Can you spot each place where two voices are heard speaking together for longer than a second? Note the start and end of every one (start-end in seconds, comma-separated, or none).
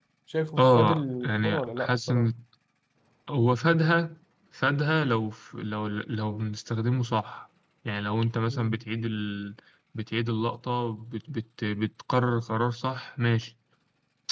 0.6-2.3